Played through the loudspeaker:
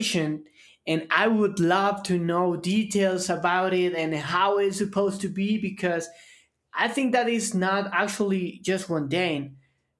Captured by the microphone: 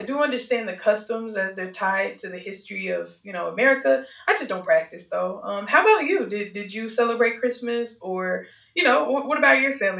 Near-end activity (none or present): present